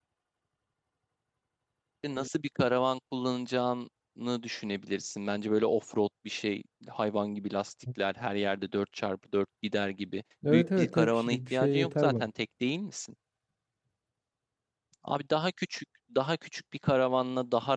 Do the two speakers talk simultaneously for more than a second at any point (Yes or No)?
Yes